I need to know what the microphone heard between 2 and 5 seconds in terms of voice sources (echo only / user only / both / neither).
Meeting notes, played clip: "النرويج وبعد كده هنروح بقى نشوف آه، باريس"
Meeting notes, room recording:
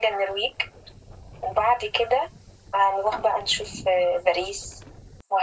echo only